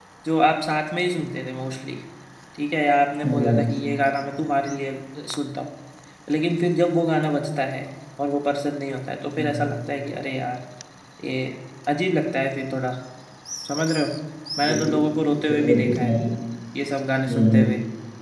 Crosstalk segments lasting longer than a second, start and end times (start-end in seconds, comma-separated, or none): 14.7-16.1